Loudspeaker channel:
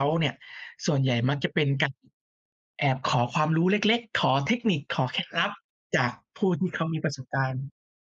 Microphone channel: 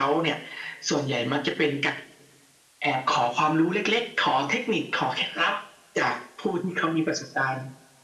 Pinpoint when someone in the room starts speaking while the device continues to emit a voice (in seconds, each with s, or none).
none